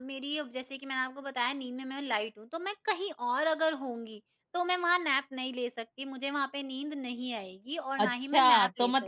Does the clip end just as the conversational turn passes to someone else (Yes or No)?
Yes